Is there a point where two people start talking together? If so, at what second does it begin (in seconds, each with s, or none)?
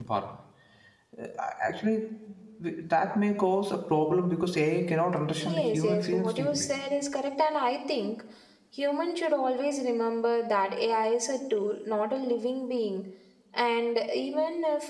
5.4 s